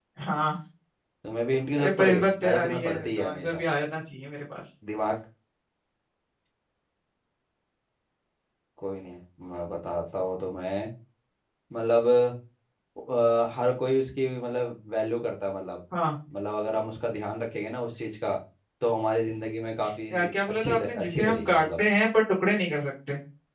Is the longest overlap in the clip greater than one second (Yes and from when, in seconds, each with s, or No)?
Yes, from 1.8 s